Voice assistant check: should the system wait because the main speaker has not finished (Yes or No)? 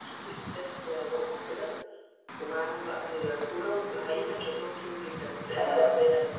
Yes